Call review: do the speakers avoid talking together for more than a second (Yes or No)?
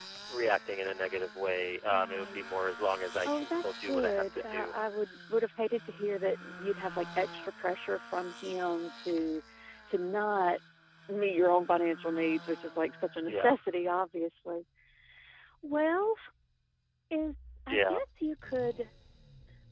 No